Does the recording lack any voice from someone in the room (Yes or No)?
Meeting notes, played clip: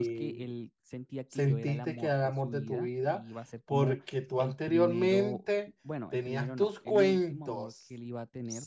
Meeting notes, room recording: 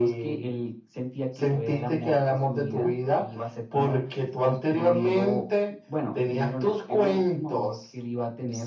Yes